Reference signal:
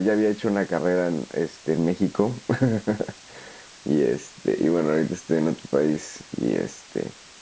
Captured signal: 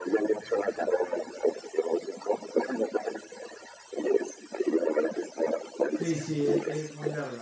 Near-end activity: present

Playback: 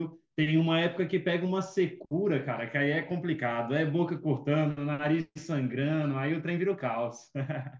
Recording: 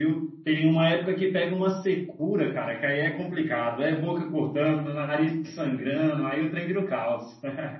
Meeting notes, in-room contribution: none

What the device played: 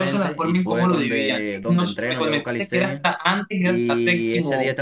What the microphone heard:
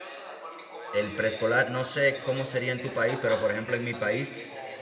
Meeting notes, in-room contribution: present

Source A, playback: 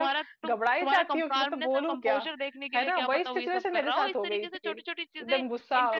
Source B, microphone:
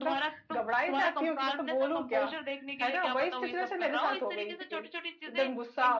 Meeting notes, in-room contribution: none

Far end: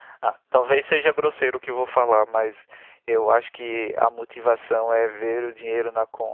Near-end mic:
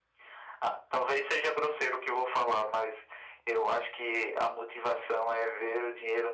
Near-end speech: none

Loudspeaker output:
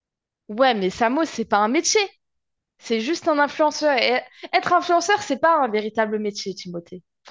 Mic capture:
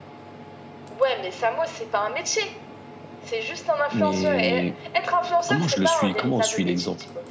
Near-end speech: present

